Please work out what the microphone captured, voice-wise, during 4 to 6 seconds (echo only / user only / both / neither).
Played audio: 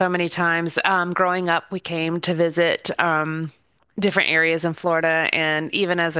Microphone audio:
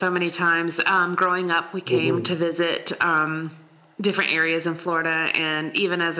echo only